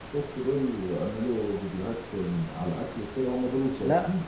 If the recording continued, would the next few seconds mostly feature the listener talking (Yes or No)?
Yes